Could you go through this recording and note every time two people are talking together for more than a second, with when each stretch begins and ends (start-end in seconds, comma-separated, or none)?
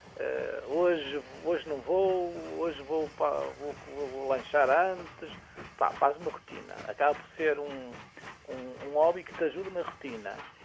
none